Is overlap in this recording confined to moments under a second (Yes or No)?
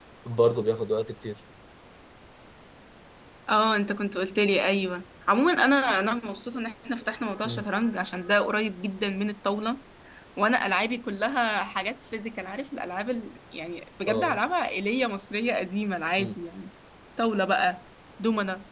Yes